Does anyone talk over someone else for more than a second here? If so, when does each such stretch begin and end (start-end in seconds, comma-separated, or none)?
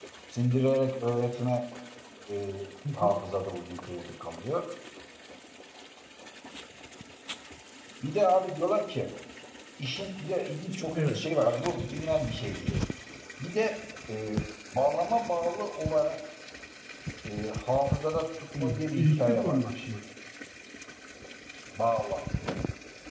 18.6-19.9